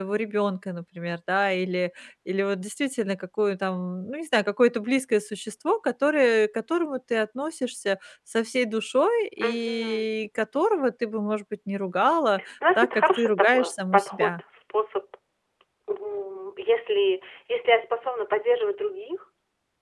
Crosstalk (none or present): present